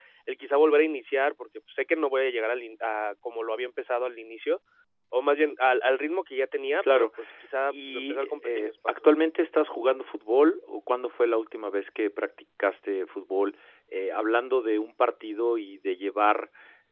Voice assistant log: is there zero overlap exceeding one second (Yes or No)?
No